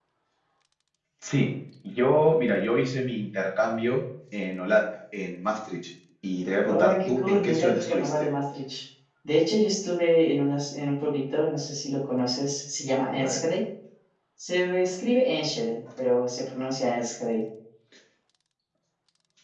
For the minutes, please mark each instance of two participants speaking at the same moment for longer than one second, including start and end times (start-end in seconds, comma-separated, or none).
6.7-8.1